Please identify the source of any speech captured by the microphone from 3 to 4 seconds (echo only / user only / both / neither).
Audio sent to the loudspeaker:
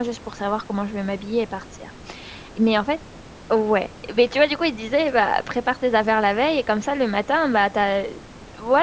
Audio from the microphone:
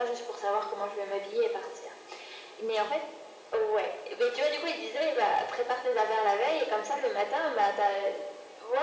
echo only